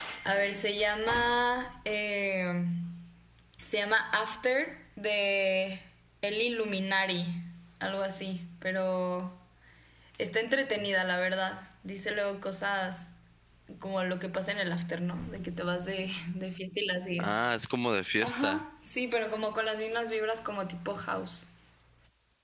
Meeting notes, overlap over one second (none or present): none